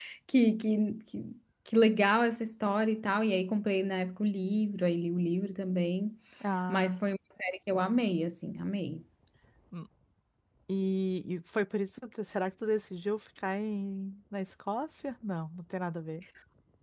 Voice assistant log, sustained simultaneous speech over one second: none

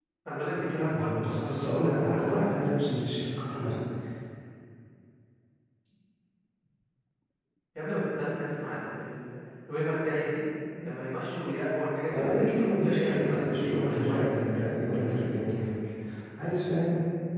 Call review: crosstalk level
present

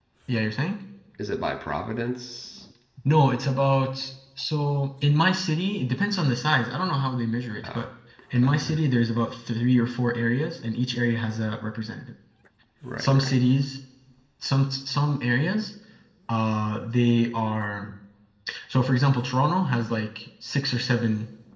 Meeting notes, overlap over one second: none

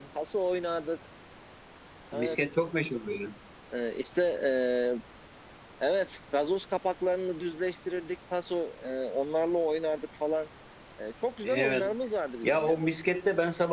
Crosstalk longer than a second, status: none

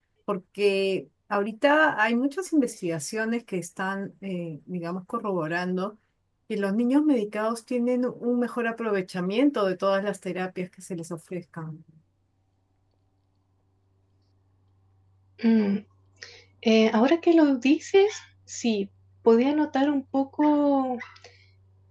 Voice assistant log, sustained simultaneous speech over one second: none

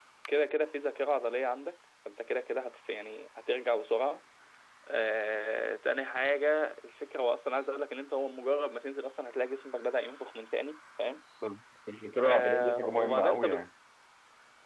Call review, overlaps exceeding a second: present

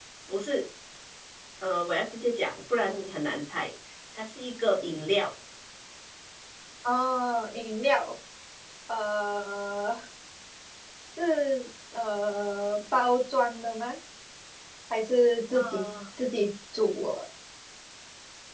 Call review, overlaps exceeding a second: none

